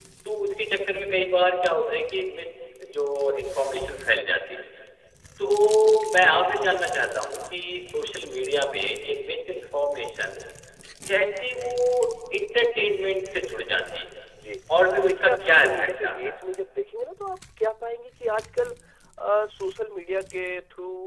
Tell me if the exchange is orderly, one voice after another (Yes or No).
No